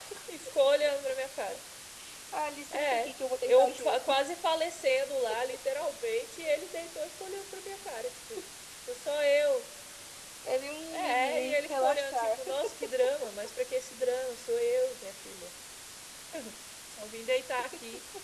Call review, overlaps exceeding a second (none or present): present